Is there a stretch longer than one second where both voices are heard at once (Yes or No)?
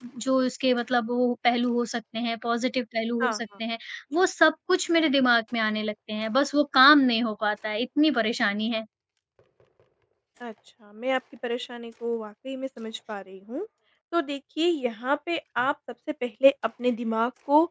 No